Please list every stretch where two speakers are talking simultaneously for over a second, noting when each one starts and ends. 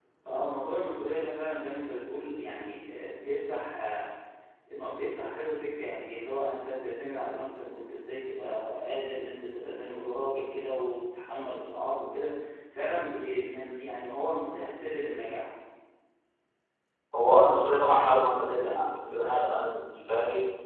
none

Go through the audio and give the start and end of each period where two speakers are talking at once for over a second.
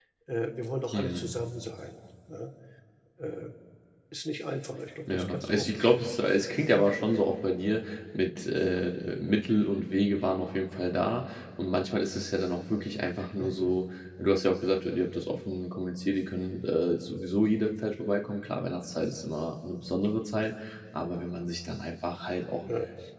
5.1-6.3

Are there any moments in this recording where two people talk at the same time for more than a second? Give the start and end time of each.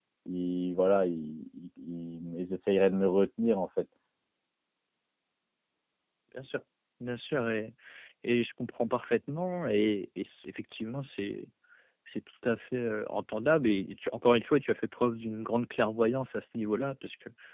none

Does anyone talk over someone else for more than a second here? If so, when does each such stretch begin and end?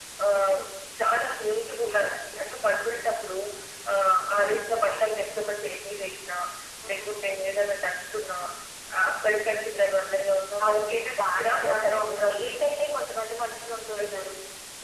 10.7-12.7

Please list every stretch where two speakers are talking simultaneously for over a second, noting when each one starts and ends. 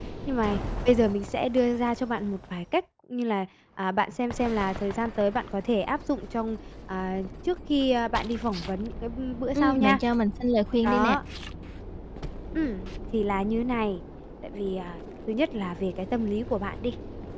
none

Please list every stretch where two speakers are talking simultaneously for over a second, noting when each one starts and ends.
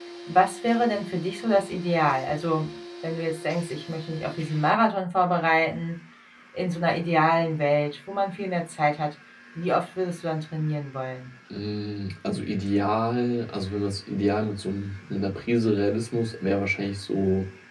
none

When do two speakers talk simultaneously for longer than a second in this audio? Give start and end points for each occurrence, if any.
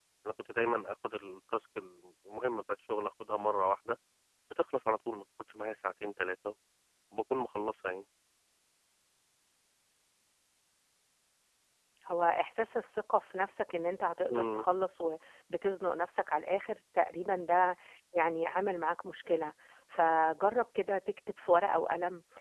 none

